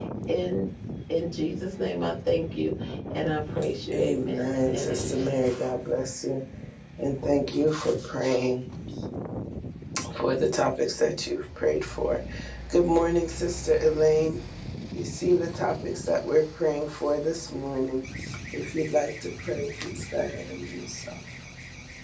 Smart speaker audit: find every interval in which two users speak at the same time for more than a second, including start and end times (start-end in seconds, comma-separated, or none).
3.9-5.3